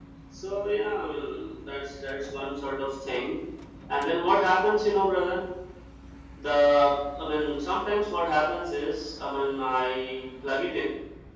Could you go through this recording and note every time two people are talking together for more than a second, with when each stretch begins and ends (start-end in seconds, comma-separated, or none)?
none